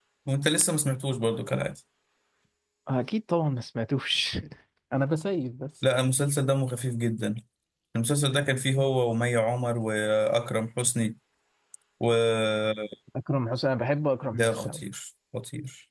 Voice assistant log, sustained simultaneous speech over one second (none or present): none